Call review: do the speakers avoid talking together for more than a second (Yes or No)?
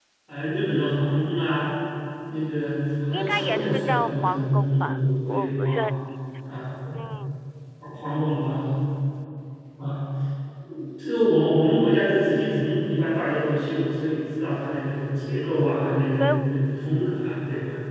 No